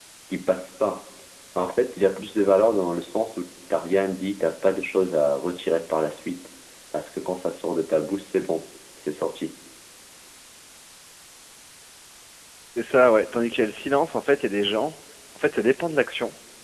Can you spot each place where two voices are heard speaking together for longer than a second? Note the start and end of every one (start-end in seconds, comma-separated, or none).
none